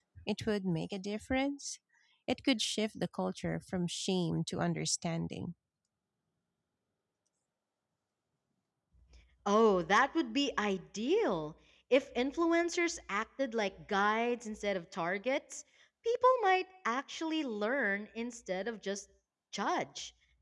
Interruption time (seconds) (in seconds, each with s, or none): none